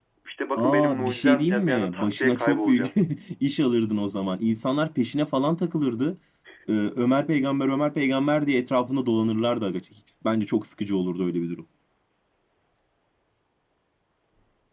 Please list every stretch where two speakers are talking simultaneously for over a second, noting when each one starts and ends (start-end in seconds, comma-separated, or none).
0.6-2.9